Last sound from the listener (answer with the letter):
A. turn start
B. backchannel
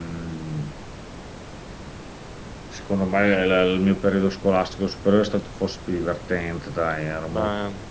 B